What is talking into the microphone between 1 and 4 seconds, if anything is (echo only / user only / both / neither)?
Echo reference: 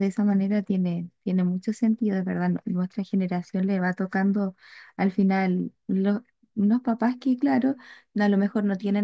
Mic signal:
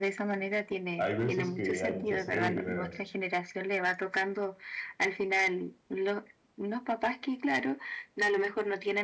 both